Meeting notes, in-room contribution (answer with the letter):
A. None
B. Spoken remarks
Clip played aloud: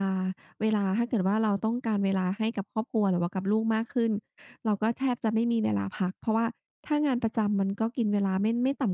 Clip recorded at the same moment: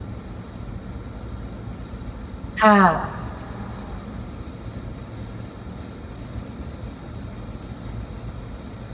B